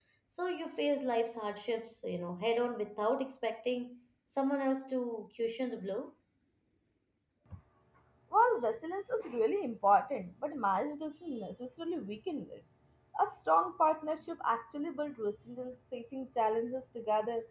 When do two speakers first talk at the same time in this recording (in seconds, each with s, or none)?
none